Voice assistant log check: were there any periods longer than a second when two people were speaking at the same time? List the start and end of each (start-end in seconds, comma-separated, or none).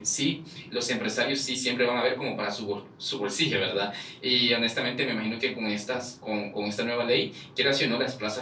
none